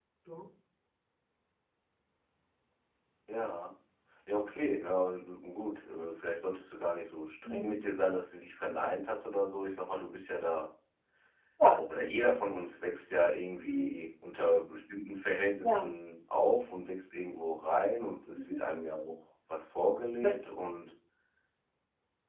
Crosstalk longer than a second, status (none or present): none